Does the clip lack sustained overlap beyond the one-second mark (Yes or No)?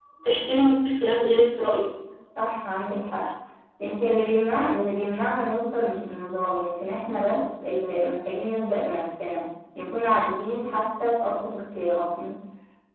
Yes